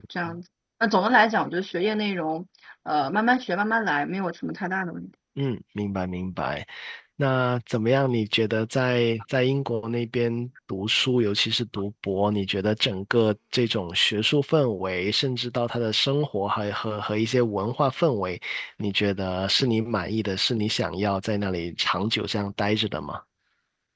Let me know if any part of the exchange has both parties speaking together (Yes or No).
No